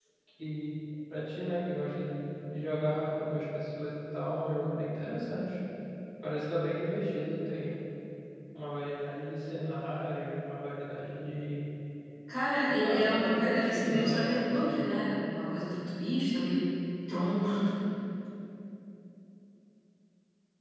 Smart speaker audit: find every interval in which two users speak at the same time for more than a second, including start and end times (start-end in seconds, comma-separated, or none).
12.8-14.9